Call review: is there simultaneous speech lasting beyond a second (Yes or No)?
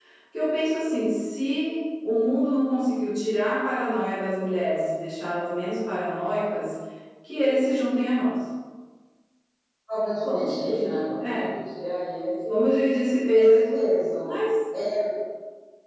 Yes